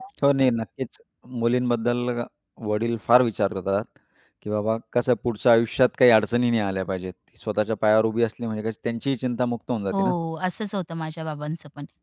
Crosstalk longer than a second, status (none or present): none